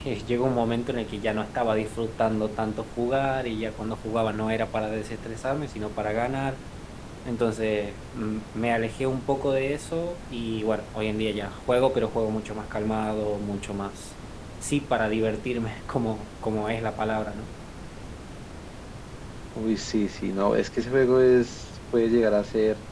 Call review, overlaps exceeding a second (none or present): none